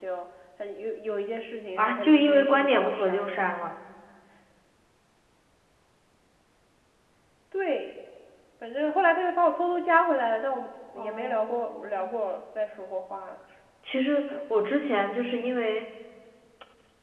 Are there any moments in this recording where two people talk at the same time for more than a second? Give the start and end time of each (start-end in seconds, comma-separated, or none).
1.8-3.5, 11.0-12.3